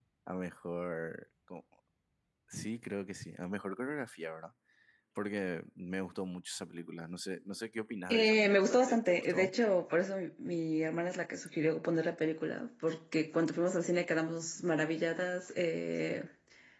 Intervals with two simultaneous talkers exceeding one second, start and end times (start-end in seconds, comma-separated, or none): 8.1-9.5